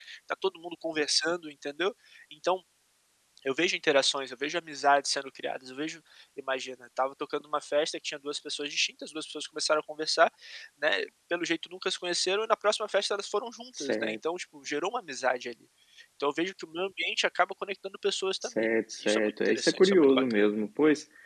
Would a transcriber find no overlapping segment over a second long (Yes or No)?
No